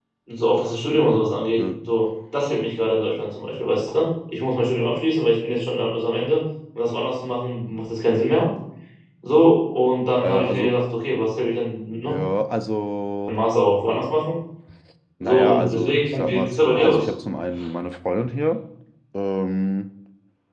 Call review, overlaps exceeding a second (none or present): present